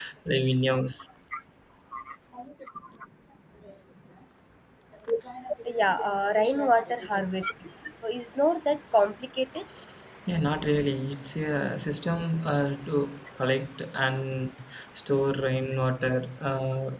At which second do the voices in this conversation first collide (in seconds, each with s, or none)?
none